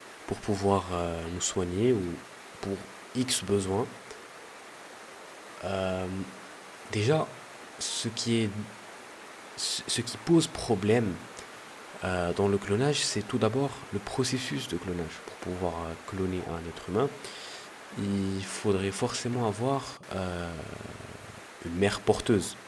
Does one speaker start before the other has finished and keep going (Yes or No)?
No